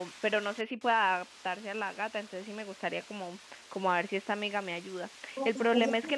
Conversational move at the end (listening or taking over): listening